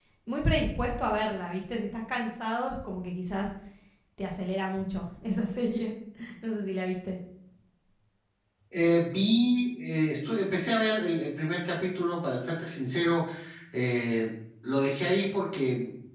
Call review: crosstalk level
none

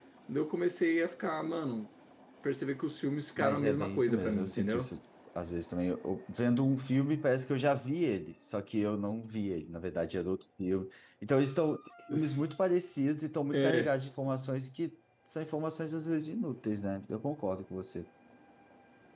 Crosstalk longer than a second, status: present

